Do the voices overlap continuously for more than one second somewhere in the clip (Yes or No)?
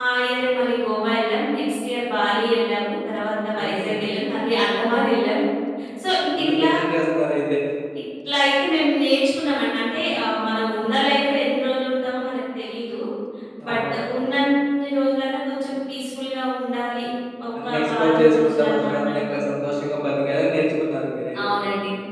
Yes